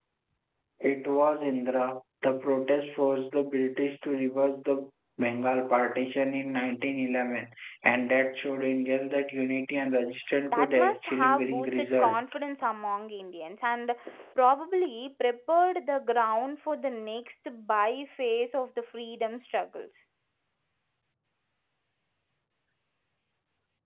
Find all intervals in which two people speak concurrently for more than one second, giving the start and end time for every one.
10.5-12.2

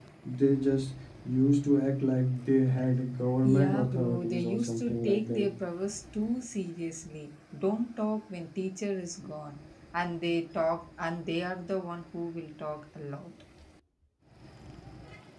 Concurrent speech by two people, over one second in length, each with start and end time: 3.4-5.5

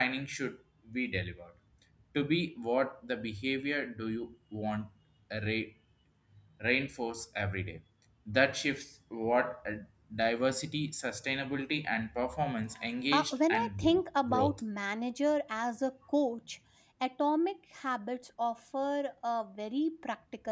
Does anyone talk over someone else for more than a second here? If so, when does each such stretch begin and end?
13.1-14.6

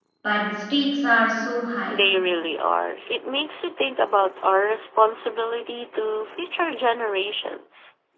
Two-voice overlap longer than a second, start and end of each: none

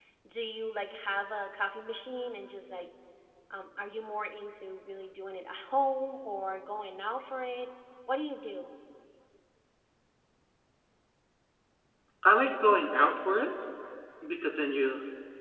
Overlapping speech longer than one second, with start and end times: none

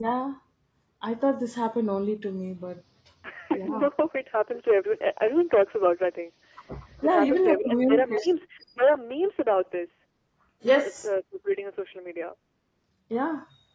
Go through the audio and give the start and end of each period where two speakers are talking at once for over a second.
7.0-8.3

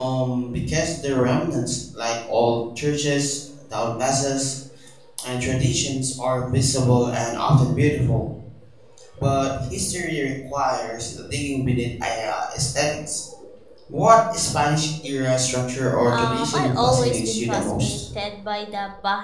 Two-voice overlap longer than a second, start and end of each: 16.1-18.0

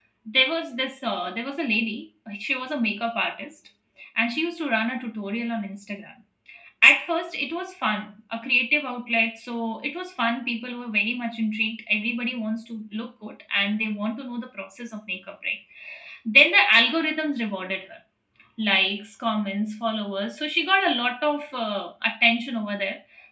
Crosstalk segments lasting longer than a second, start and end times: none

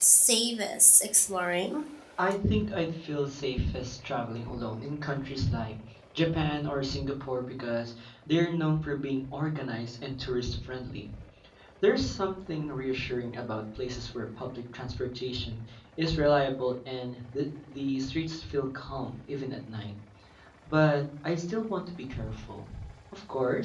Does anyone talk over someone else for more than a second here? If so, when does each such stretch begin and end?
none

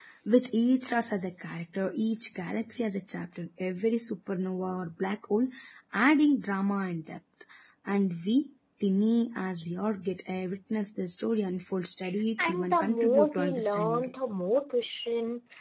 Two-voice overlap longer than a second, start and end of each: 12.4-14.1

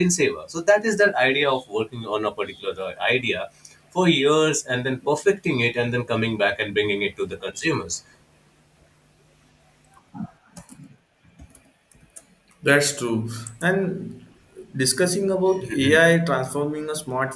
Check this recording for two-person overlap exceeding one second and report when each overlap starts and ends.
none

